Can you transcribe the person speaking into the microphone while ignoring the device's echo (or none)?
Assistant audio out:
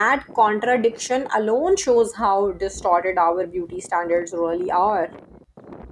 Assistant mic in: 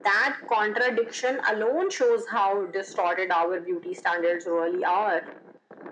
none